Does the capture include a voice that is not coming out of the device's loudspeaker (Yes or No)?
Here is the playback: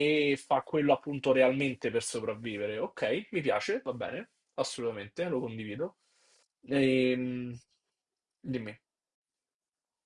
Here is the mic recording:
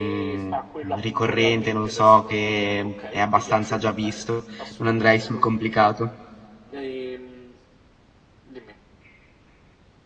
Yes